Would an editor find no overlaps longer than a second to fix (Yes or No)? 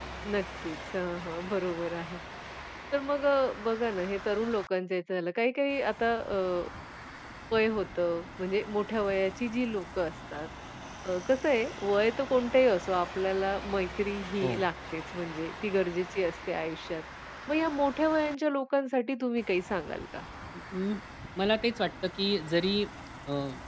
Yes